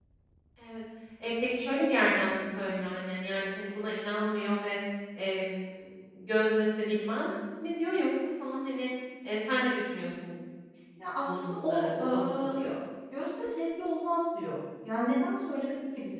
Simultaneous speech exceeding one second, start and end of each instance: 11.2-12.6

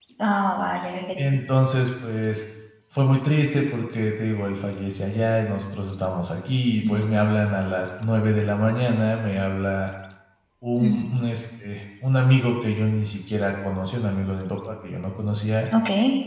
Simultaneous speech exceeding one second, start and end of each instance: none

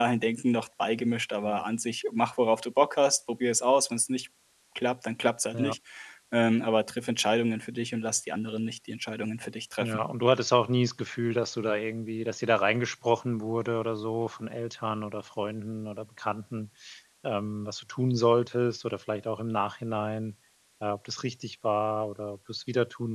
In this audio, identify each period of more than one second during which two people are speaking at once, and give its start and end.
none

